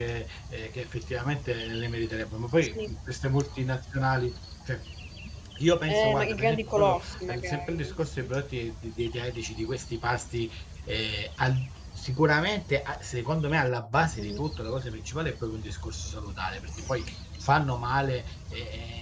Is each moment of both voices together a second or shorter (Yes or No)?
No